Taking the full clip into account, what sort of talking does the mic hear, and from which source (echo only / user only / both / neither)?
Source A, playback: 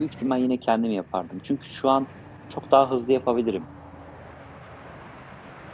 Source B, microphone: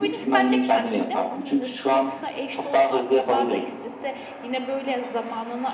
both